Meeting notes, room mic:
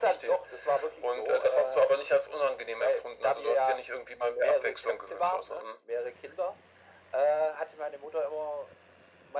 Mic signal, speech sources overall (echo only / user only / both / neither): echo only